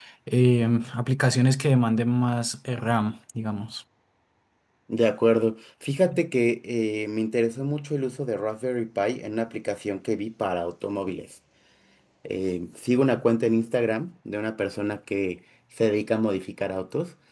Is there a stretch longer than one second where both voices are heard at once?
No

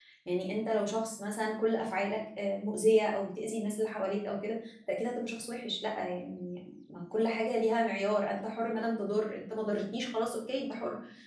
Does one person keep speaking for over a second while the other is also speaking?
No

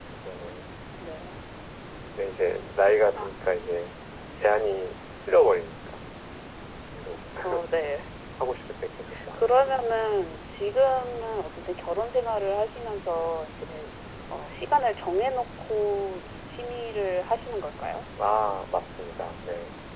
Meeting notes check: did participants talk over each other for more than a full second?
No

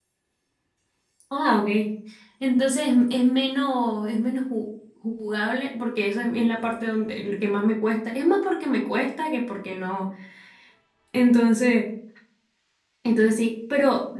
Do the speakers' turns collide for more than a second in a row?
No

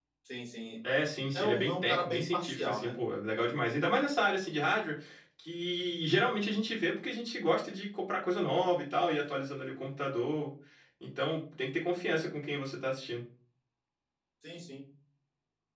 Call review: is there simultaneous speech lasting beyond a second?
Yes, from 1.3 s

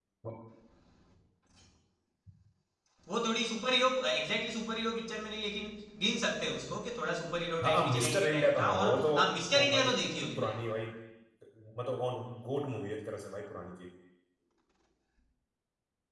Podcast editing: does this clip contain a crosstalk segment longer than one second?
Yes, from 7.6 s

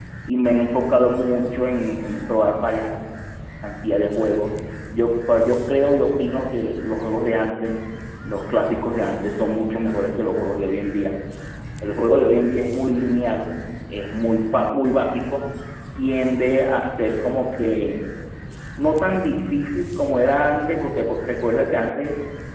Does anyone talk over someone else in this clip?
No

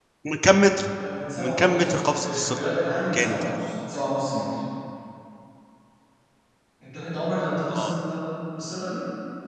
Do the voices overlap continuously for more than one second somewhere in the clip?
Yes, from 1.4 s

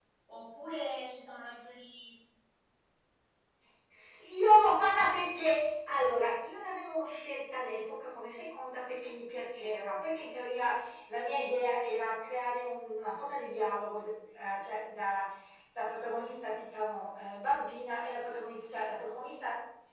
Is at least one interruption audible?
No

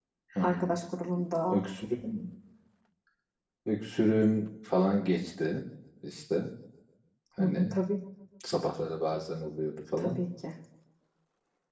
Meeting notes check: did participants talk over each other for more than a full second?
No

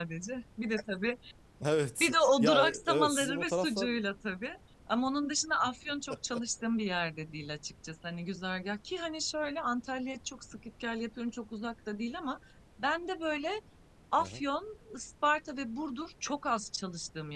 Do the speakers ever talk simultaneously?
Yes, from 2.0 s

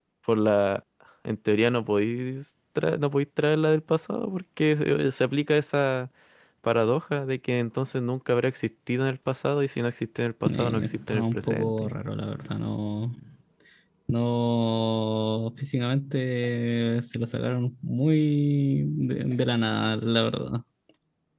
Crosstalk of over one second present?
Yes, from 10.4 s

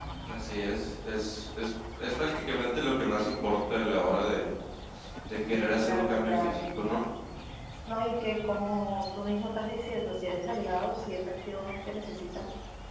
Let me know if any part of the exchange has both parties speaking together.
Yes, from 5.8 s

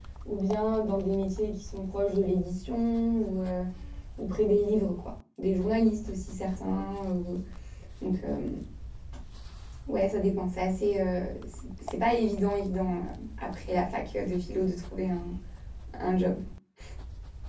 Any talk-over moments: No

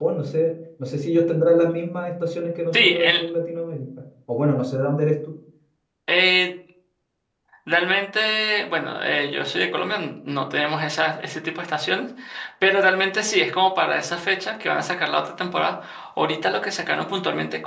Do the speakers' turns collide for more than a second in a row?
No

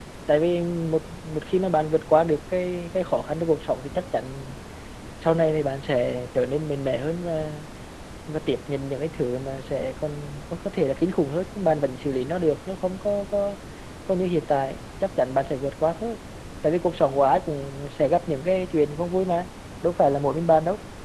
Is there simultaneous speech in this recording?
No

